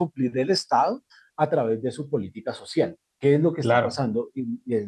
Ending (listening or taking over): listening